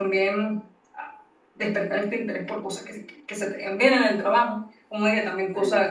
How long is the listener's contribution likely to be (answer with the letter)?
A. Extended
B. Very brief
B